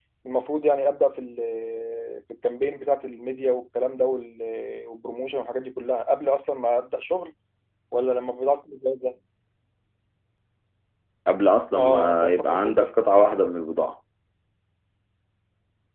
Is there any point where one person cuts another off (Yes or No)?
Yes